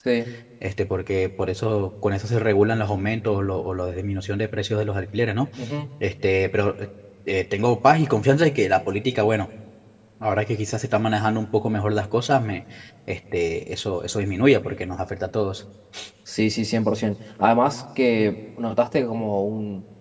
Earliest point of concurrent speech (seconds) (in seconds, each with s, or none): none